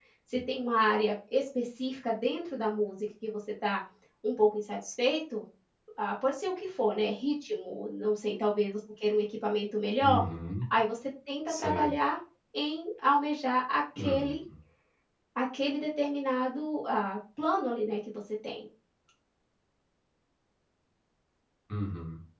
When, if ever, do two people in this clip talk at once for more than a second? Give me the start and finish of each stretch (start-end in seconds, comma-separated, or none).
none